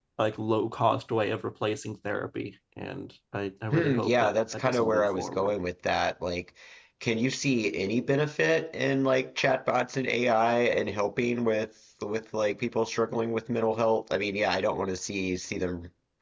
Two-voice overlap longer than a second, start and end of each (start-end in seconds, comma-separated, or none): 3.7-5.5